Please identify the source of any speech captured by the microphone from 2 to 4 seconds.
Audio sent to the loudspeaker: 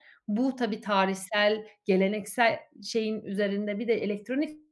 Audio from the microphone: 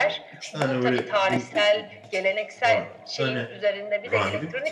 both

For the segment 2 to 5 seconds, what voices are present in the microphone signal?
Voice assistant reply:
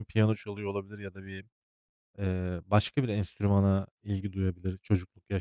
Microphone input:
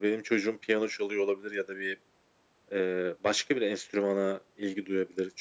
echo only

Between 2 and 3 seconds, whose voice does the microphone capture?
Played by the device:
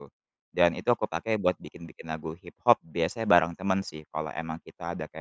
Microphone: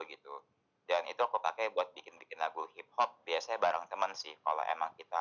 echo only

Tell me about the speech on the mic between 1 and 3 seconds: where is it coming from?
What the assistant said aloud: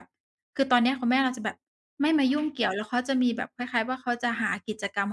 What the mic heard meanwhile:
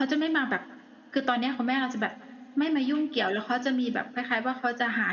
echo only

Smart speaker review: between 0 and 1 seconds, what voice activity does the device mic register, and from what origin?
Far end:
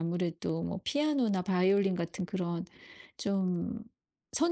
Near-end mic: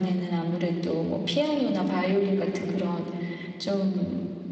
echo only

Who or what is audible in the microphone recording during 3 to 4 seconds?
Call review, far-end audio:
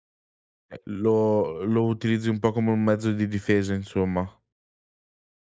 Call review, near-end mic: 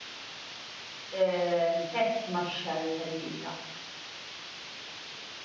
user only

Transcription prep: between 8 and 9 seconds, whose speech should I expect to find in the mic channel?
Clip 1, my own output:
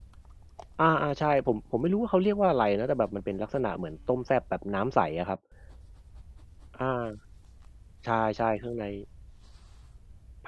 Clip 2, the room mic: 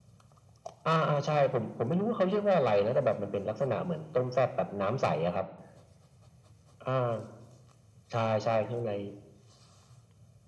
echo only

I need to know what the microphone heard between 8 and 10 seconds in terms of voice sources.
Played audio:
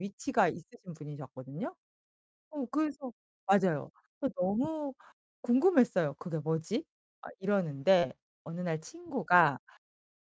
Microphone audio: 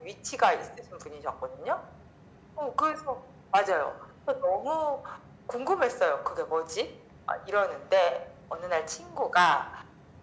echo only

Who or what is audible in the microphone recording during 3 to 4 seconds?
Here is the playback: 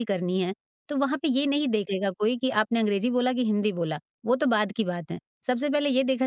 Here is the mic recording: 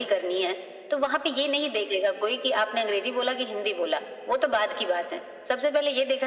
echo only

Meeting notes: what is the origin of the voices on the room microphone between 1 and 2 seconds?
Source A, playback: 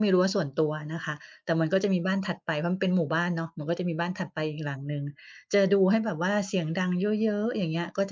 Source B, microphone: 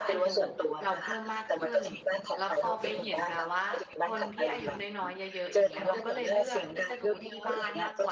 both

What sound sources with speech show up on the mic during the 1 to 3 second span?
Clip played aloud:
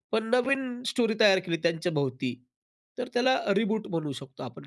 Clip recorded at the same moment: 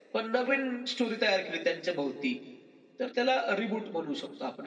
echo only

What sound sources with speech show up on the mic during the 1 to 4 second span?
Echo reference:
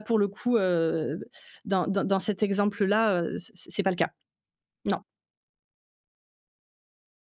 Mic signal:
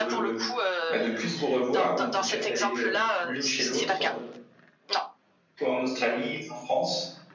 both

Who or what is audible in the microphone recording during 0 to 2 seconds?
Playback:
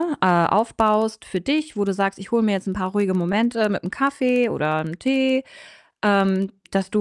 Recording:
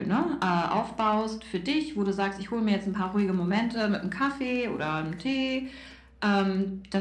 echo only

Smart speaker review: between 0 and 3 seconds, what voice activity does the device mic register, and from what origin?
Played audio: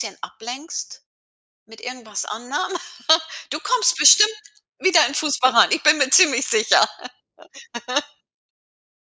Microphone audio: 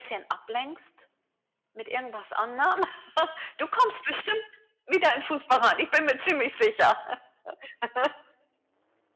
echo only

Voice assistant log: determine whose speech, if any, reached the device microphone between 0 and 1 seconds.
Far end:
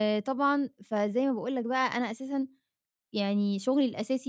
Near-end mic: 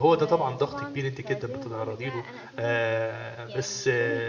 both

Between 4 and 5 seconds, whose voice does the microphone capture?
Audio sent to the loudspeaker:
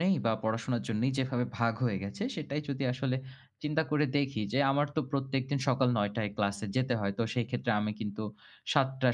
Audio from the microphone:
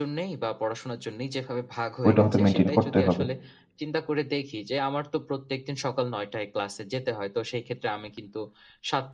echo only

